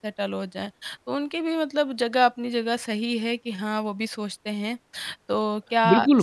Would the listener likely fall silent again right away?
No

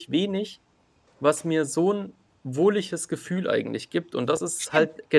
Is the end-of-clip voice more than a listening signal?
No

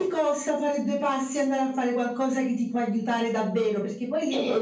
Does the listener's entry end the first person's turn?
No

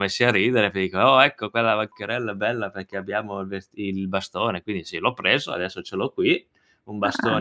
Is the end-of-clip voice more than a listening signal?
No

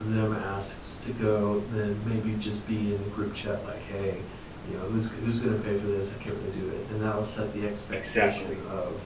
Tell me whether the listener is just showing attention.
Yes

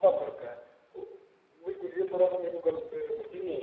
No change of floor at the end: No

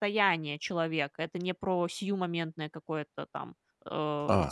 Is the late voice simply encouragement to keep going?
No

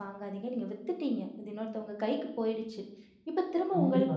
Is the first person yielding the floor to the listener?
No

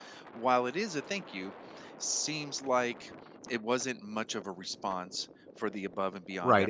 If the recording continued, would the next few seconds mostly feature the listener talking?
Yes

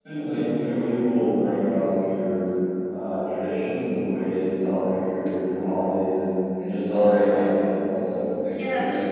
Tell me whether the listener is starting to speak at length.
Yes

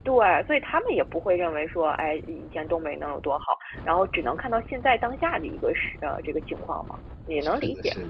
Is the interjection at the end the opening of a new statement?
Yes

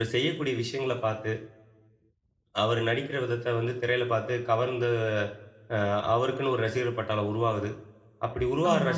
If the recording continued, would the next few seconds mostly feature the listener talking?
No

